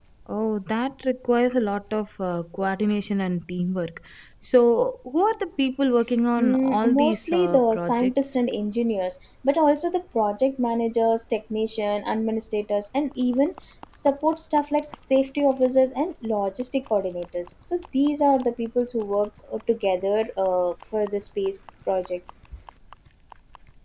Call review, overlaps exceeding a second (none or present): present